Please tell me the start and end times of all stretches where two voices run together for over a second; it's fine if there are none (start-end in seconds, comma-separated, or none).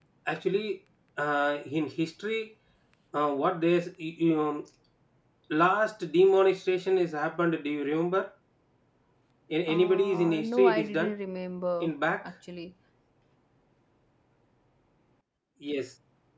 9.7-11.1